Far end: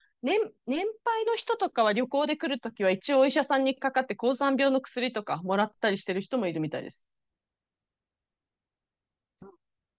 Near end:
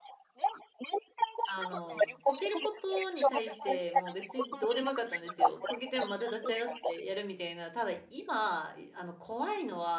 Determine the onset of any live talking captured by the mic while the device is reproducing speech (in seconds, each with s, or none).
1.4 s